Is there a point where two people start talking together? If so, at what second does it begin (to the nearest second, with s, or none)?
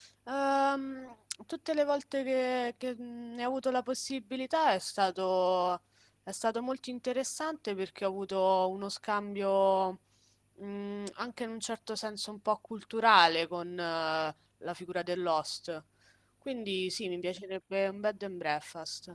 none